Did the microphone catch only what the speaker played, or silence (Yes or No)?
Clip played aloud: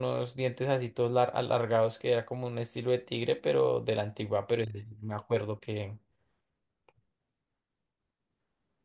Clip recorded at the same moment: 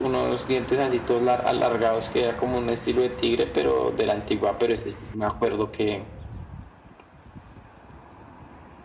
Yes